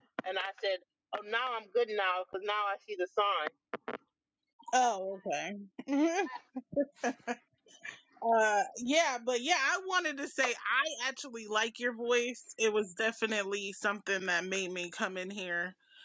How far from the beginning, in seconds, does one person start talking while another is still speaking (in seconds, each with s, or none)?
none